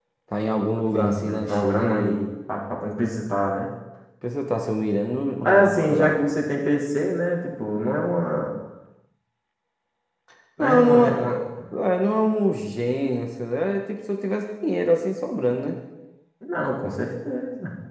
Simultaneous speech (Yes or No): Yes